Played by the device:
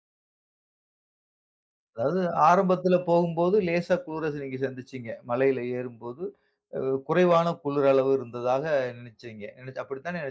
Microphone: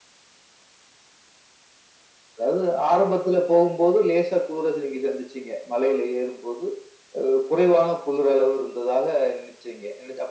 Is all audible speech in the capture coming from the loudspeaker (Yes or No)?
Yes